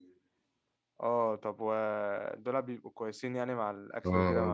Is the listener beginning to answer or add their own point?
Yes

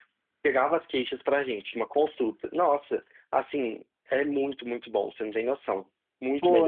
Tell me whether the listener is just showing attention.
No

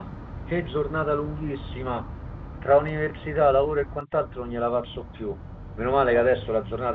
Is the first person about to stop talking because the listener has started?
No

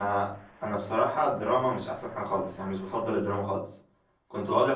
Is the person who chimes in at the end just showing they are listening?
Yes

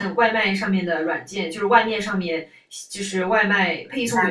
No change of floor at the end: Yes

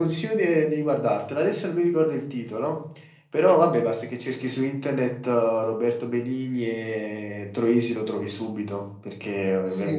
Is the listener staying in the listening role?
No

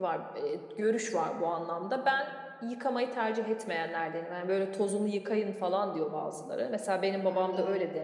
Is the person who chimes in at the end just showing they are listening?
Yes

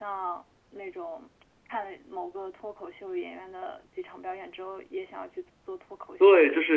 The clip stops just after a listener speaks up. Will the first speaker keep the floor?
No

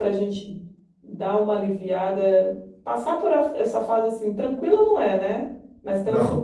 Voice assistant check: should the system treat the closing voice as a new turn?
No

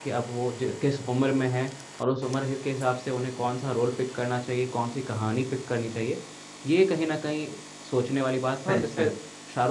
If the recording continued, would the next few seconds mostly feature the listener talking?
No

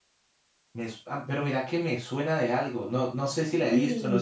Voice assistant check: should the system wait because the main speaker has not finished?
Yes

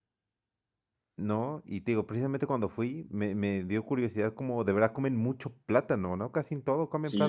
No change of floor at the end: No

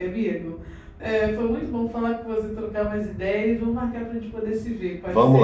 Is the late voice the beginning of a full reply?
Yes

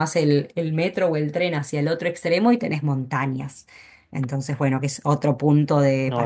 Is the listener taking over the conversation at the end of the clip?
No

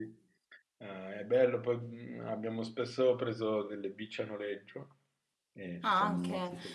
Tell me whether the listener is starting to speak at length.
Yes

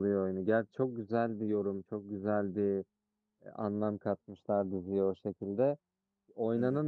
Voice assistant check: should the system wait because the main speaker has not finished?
Yes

